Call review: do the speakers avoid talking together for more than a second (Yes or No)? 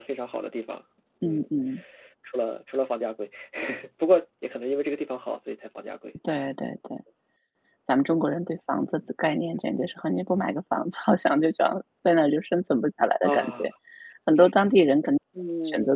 Yes